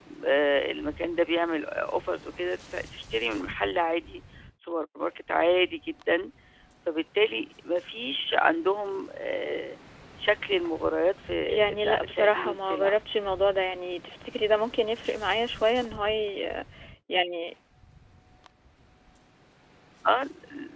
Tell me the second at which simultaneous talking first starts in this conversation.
11.5 s

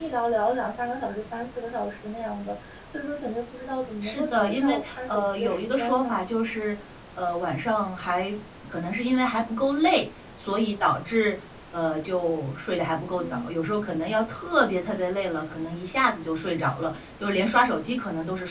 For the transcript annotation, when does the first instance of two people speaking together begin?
4.0 s

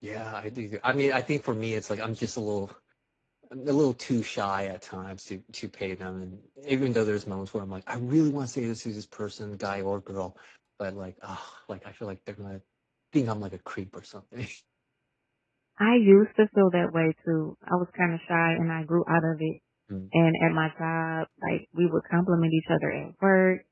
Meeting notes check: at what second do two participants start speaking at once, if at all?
none

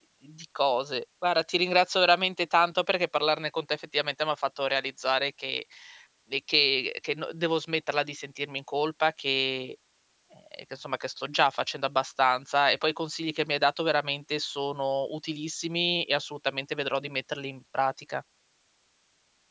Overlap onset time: none

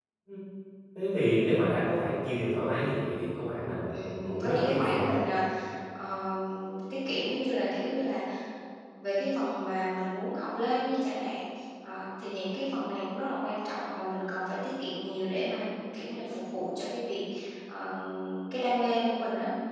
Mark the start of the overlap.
3.9 s

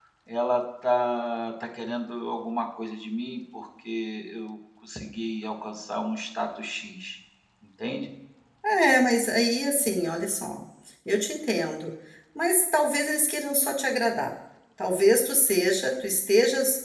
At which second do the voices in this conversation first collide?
none

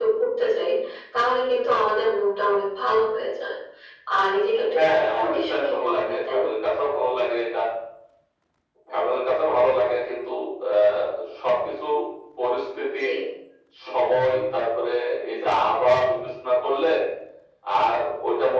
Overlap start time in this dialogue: 4.6 s

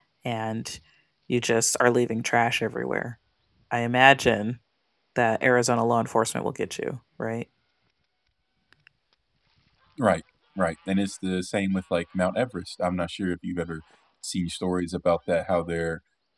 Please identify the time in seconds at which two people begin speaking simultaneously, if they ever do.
none

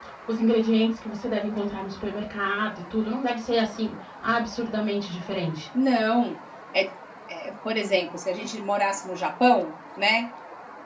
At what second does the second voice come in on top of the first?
none

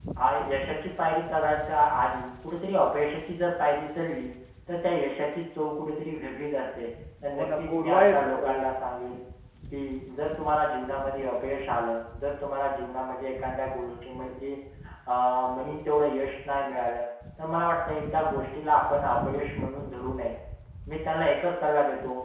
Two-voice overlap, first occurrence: 7.3 s

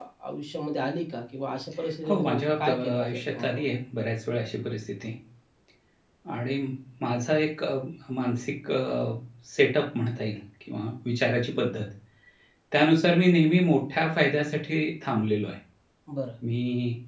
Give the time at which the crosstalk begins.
2.1 s

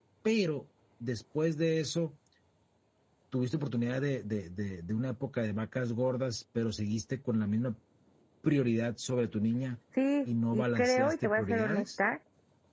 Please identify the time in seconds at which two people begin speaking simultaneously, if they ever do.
10.5 s

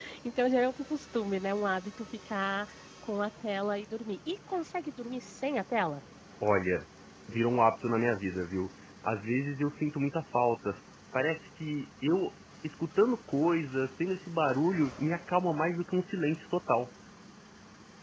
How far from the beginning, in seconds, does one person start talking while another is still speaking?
none

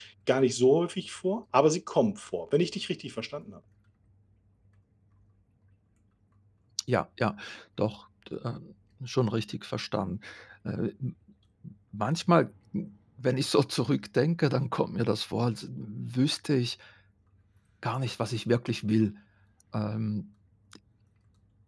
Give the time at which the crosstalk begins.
none

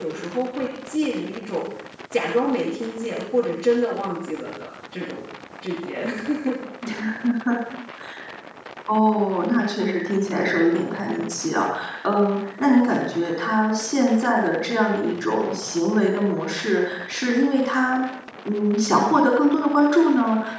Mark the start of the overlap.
none

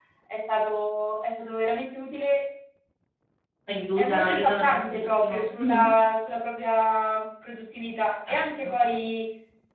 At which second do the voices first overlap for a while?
4.0 s

